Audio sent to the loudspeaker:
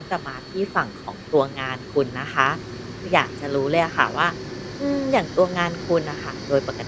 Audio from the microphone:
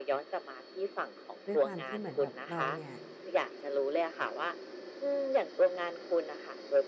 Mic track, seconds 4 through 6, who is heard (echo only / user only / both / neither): echo only